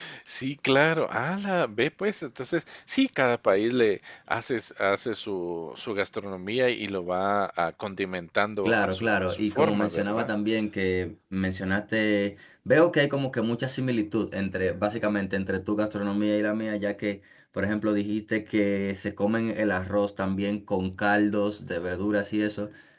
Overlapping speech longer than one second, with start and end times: 8.6-10.3

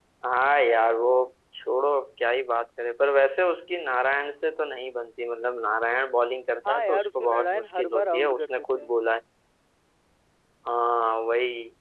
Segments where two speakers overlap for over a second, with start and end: 6.7-8.9

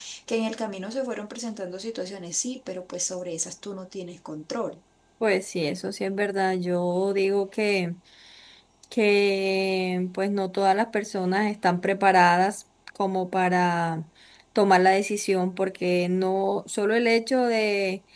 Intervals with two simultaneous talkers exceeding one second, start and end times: none

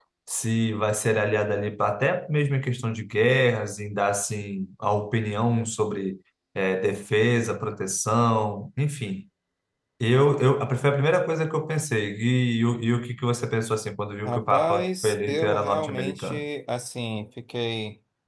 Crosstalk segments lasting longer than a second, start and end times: 14.2-16.5

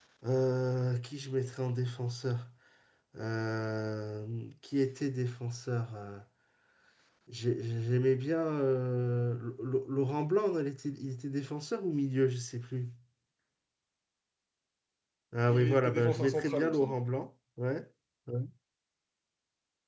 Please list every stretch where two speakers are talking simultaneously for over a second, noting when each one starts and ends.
15.5-17.0

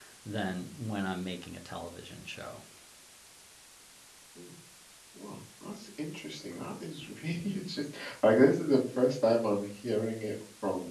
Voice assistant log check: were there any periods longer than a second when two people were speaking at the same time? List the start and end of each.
none

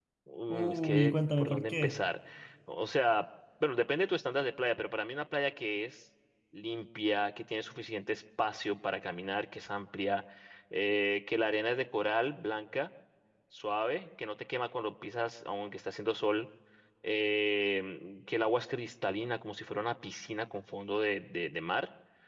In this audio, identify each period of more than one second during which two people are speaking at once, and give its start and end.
0.5-1.9

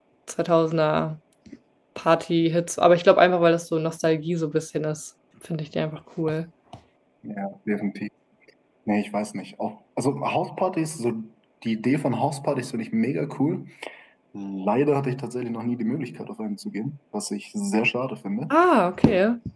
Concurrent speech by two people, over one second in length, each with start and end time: none

